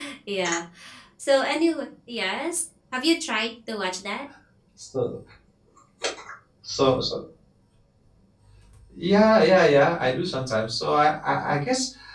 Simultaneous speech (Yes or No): No